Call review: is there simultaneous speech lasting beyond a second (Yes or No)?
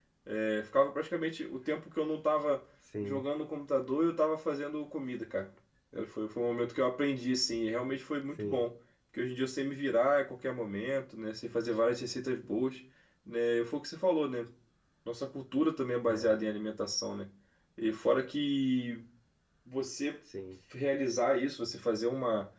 No